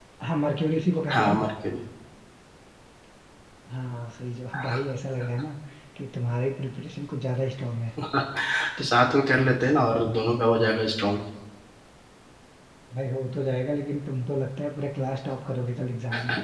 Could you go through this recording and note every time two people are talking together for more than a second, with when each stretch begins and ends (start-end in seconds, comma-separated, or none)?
none